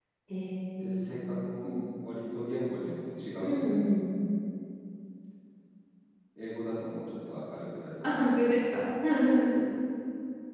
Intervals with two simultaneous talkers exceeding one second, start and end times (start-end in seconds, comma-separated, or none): none